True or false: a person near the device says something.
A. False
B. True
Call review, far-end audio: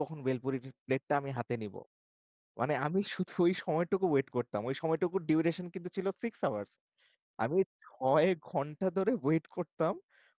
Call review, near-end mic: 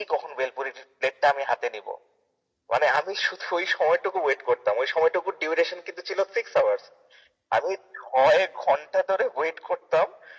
A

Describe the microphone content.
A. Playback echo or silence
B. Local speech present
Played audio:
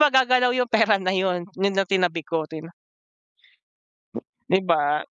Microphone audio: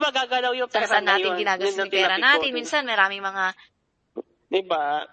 B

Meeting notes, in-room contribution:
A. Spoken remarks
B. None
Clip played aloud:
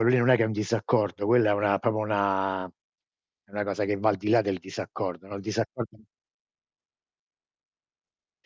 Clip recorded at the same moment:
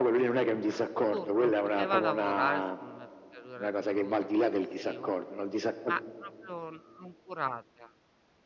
A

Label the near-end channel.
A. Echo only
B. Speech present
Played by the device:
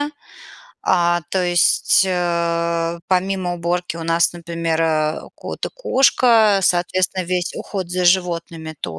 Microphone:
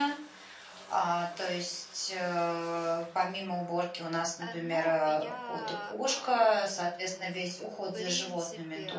B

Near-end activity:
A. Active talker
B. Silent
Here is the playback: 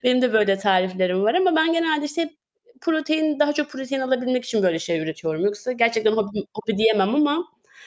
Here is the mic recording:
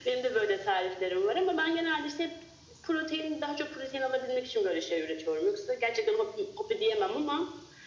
B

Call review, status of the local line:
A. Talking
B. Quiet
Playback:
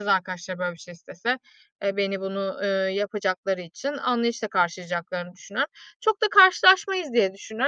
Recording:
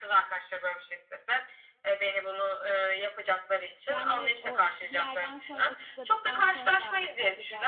A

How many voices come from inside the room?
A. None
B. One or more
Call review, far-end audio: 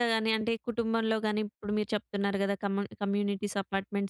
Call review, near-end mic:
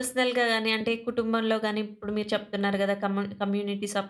A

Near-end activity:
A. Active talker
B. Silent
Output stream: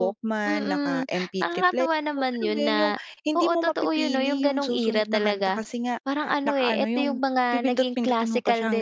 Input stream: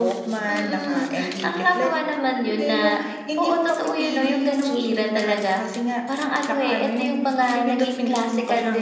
B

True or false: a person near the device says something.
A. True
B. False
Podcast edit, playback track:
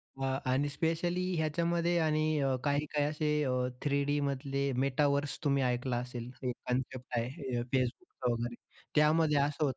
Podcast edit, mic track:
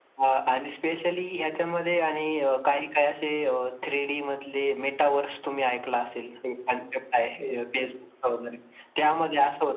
B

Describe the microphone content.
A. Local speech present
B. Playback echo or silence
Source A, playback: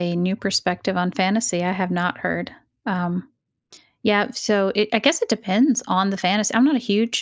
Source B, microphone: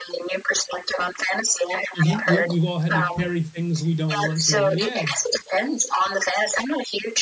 A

